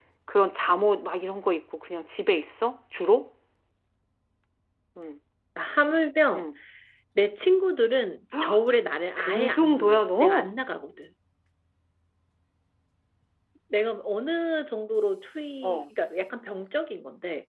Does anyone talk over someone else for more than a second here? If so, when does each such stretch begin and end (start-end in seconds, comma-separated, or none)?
9.2-10.5